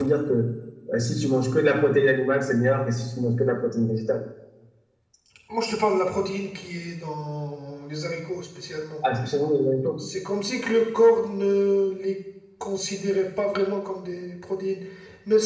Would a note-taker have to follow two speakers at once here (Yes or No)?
No